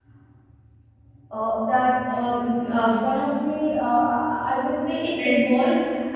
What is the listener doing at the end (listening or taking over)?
listening